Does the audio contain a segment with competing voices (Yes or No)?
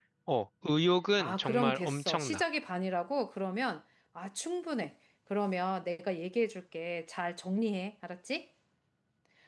Yes